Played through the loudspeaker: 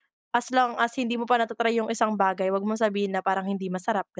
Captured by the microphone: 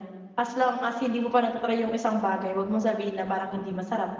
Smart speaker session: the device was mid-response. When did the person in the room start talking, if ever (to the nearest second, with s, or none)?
none